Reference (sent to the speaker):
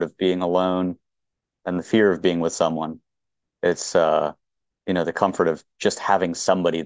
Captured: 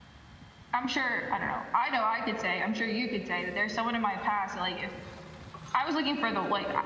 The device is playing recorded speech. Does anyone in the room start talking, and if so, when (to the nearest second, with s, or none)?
1 s